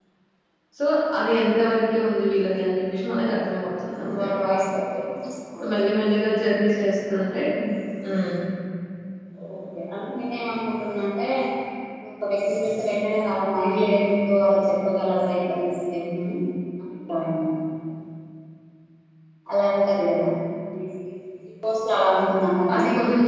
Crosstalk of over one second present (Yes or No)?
No